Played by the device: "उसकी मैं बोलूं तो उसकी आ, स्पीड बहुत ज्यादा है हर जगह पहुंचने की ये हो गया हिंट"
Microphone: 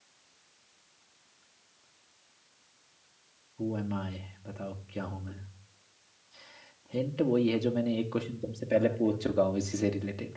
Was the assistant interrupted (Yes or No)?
Yes